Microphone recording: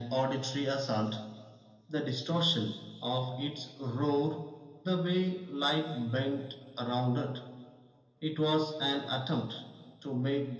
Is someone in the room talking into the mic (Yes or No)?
No